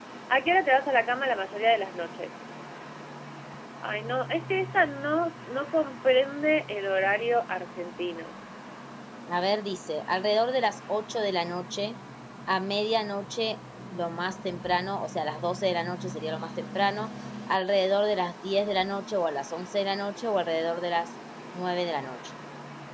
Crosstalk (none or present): none